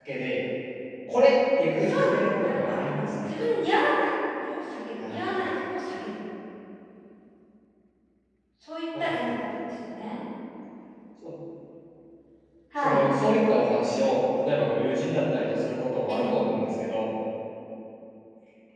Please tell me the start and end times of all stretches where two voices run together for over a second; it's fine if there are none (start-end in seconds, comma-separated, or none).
1.8-3.3